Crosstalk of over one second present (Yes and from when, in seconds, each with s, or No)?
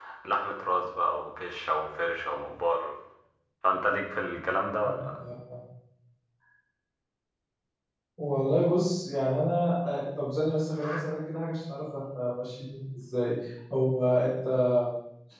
No